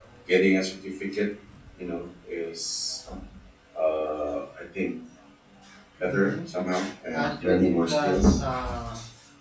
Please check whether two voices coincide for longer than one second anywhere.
Yes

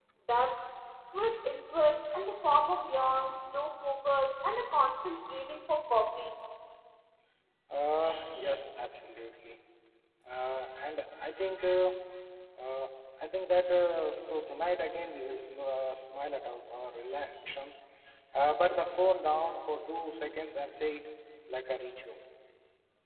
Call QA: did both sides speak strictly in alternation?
Yes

